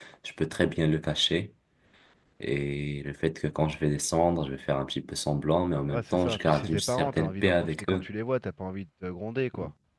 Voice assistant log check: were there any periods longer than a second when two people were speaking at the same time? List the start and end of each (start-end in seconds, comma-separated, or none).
5.9-8.0